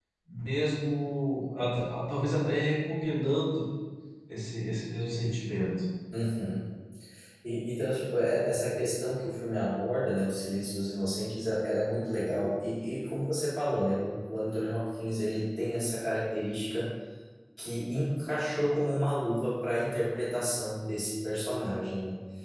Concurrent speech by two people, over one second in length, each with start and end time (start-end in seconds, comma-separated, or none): none